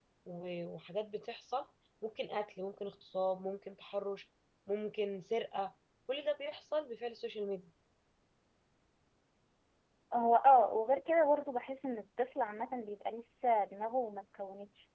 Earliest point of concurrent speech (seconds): none

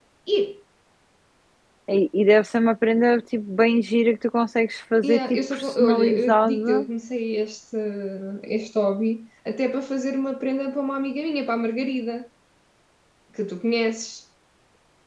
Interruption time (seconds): 5.0 s

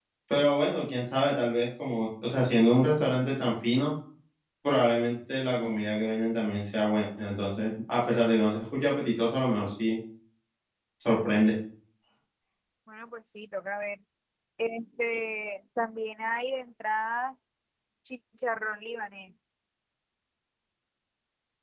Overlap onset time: none

